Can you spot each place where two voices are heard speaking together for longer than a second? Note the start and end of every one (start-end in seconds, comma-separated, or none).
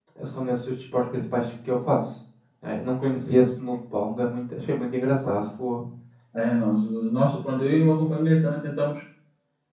none